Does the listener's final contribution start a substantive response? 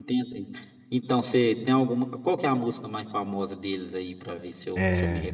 Yes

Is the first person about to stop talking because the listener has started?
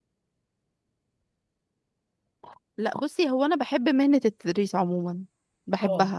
No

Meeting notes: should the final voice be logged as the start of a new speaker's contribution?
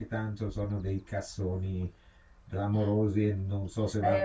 Yes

